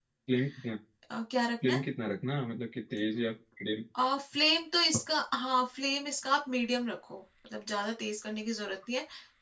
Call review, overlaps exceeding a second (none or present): none